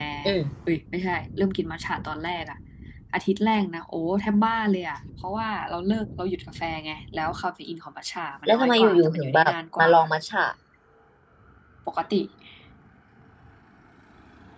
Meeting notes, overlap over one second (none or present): present